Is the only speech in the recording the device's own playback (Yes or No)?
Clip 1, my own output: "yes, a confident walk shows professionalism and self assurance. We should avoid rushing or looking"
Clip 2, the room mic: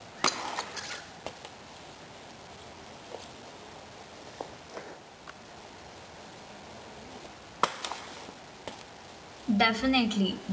No